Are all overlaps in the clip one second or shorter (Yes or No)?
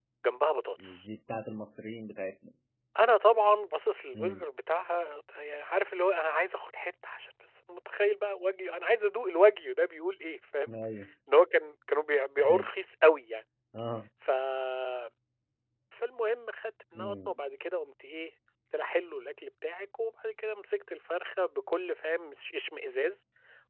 Yes